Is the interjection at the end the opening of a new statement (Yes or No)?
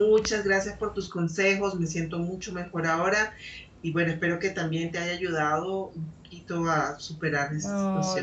Yes